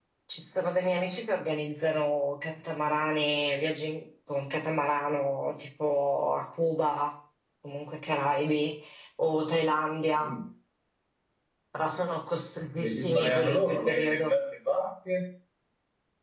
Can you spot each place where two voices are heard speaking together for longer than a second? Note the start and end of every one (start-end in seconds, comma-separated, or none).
12.8-14.3